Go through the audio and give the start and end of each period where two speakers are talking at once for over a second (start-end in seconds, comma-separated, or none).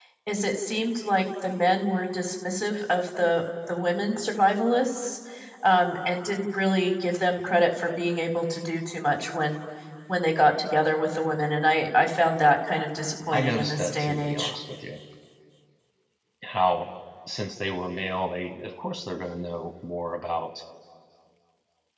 13.3-14.5